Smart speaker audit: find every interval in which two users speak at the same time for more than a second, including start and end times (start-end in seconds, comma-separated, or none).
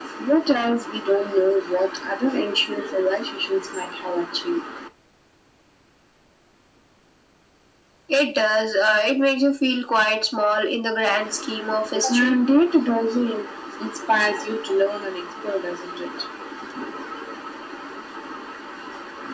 none